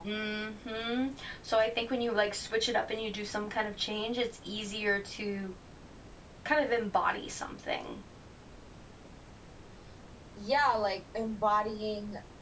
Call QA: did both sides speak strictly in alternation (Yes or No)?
Yes